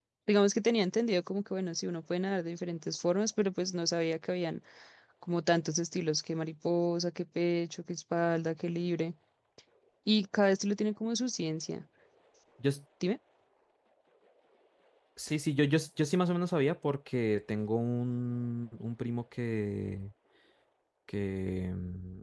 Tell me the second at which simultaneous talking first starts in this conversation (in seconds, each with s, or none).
none